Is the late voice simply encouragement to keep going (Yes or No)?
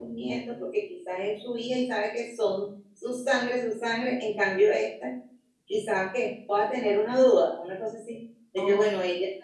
Yes